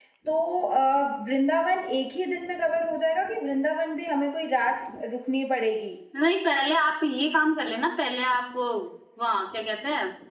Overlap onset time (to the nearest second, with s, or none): none